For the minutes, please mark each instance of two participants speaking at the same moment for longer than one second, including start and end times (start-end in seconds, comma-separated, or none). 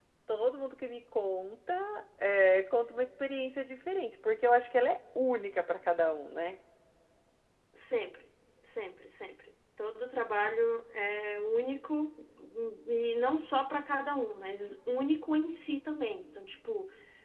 none